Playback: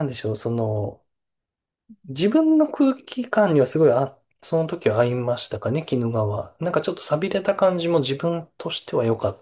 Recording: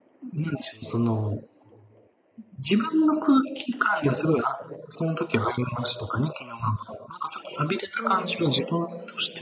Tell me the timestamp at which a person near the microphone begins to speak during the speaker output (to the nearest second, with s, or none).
8 s